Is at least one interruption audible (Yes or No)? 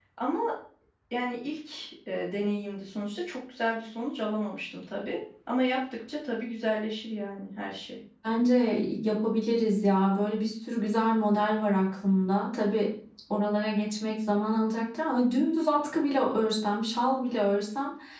No